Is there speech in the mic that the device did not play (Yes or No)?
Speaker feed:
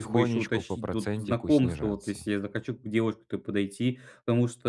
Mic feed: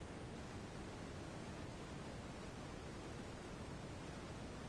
No